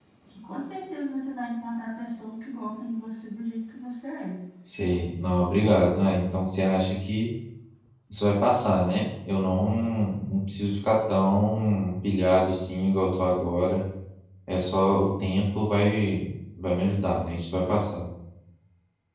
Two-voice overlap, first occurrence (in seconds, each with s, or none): none